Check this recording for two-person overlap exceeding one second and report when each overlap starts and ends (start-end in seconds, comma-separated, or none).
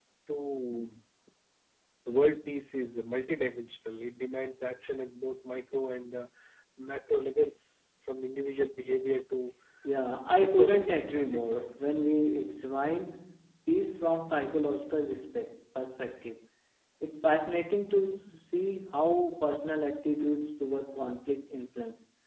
10.4-11.8